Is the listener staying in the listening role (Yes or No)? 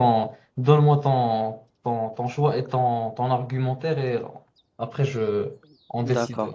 No